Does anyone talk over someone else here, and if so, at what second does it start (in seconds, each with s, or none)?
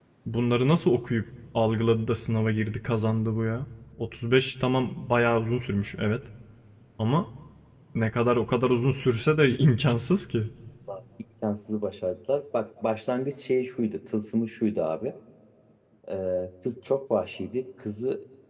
none